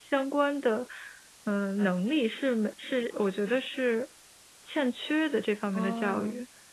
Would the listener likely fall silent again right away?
No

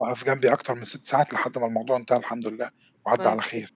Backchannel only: No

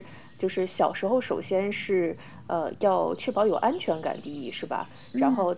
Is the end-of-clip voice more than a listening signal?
No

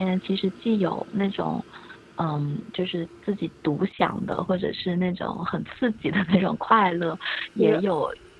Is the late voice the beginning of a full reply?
No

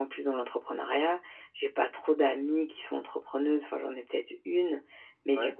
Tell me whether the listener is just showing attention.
Yes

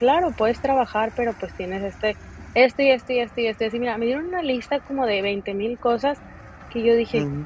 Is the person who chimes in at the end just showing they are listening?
Yes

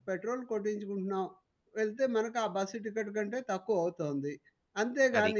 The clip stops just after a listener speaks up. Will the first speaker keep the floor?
Yes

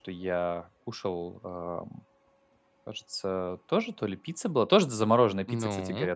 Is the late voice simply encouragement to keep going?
Yes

